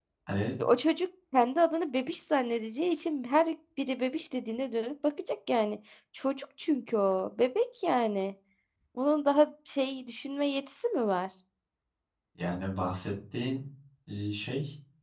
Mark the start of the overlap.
none

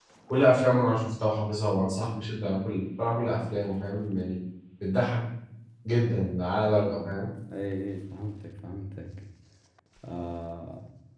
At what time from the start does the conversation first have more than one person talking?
none

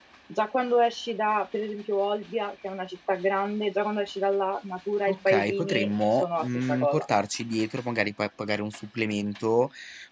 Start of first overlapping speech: 5.1 s

